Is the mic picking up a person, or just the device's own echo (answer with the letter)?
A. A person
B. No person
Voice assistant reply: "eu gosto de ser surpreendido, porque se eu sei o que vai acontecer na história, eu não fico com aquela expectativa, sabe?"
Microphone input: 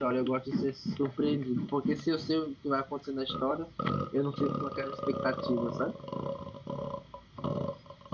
B